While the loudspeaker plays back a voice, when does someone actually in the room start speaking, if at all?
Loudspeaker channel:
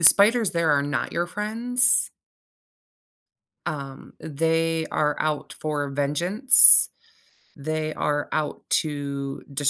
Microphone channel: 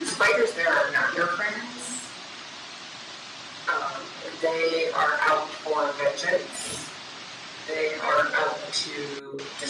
none

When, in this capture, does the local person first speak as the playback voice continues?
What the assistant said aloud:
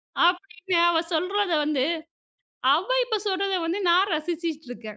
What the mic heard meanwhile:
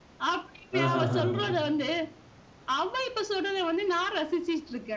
0.8 s

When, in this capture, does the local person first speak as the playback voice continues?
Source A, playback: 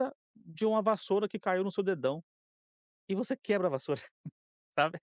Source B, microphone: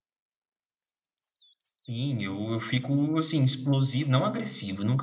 1.9 s

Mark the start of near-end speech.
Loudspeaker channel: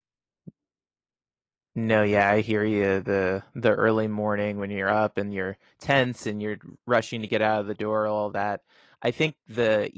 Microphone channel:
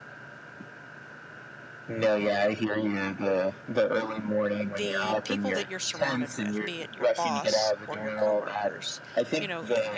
4.6 s

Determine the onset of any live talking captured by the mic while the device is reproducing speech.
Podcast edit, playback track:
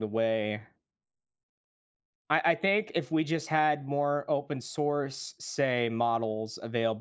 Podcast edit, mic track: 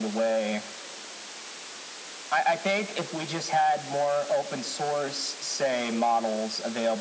none

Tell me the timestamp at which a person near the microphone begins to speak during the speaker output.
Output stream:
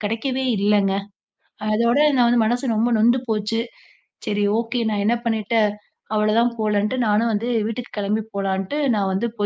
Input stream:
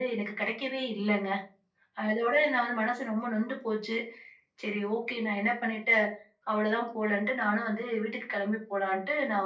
none

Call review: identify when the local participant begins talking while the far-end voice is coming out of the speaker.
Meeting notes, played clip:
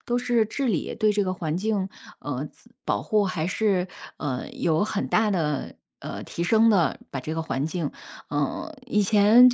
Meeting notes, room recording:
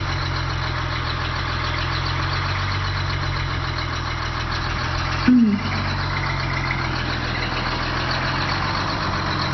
5.3 s

